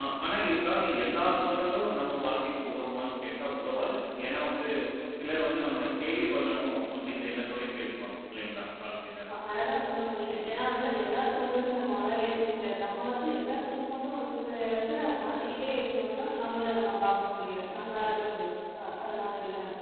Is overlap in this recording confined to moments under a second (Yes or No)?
Yes